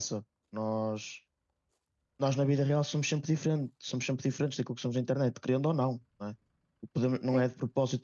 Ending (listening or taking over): listening